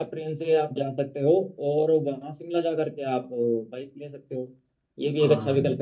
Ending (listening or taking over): listening